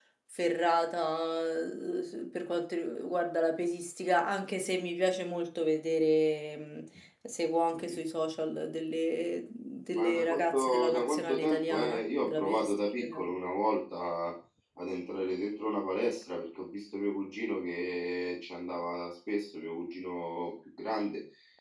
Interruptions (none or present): present